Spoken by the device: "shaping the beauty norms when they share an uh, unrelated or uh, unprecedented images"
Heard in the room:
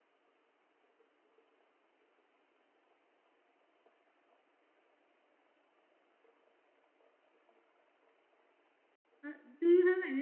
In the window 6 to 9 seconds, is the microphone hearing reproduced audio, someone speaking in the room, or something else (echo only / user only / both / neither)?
neither